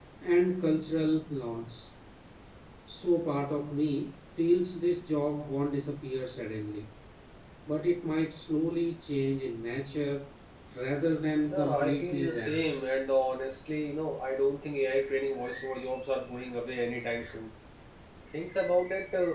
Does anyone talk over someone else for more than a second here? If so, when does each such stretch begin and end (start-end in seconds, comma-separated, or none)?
11.5-12.8